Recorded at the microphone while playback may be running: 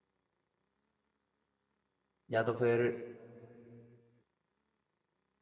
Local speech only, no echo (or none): या तो फिर